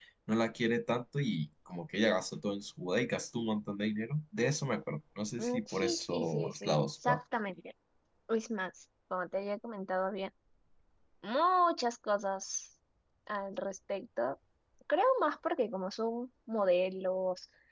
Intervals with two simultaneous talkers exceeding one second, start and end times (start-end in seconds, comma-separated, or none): 5.4-7.2